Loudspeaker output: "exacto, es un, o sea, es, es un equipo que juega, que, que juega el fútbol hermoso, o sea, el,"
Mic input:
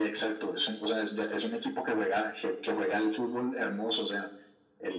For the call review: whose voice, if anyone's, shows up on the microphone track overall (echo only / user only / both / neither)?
echo only